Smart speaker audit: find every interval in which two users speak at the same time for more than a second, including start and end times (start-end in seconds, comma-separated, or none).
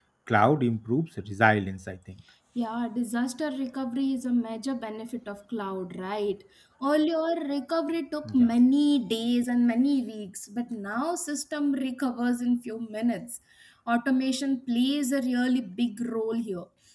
none